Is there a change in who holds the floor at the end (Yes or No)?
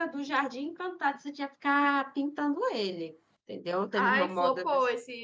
Yes